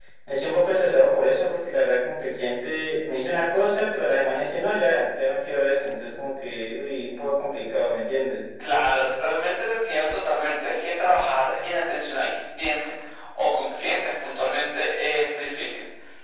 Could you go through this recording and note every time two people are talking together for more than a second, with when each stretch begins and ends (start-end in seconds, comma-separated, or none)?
none